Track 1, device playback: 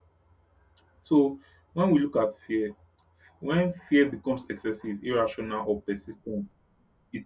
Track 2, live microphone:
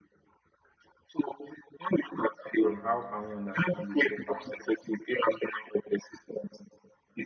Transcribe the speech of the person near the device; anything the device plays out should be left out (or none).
and how can we understand it better?